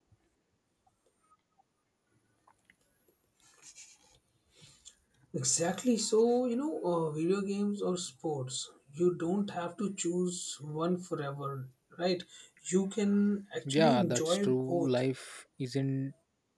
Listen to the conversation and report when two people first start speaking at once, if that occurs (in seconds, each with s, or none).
13.7 s